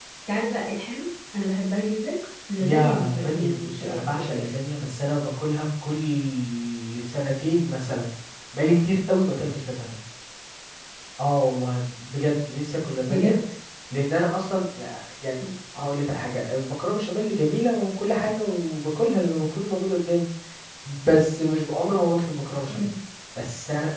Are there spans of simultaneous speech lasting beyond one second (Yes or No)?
Yes